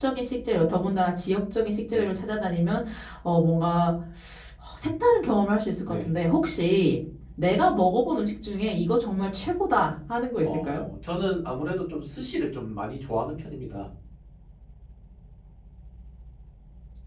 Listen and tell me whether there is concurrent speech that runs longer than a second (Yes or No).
No